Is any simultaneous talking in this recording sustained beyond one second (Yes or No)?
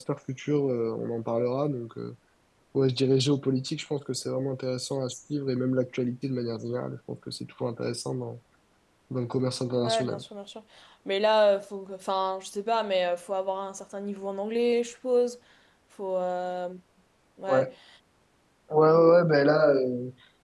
No